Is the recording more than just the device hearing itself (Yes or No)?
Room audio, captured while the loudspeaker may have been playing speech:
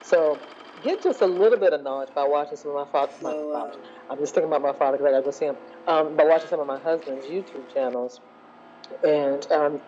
Yes